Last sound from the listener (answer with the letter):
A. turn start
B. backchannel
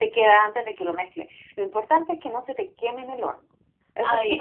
A